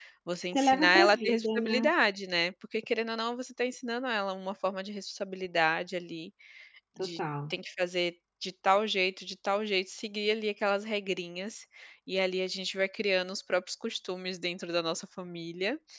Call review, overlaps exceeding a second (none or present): present